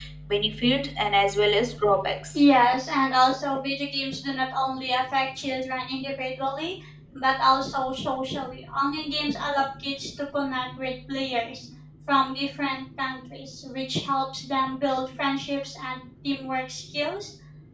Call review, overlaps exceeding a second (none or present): none